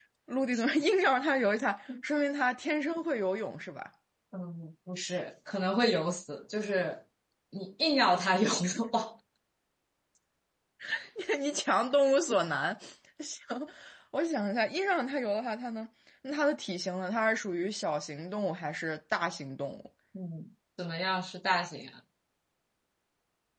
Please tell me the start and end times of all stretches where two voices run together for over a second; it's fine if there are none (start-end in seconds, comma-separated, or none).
none